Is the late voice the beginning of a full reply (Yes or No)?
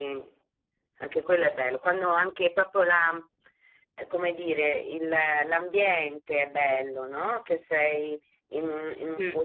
No